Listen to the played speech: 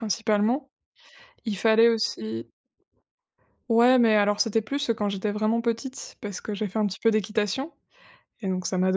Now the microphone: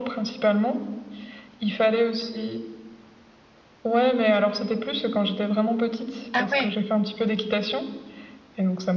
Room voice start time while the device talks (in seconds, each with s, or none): 6.3 s